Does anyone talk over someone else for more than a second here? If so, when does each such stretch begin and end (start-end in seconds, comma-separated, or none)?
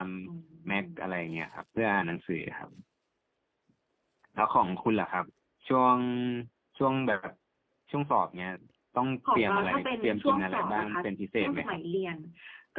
9.3-11.0